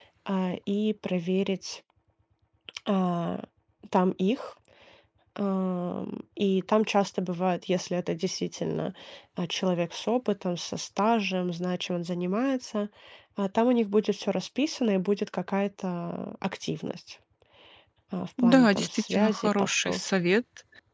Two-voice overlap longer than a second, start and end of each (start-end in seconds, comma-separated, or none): 18.4-20.0